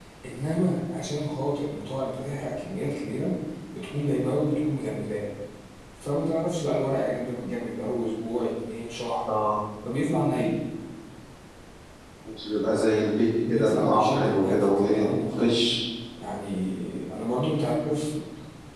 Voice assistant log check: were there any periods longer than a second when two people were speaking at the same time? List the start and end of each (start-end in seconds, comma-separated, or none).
13.5-15.7